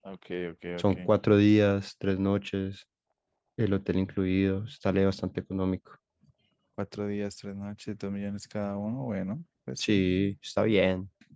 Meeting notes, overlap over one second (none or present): none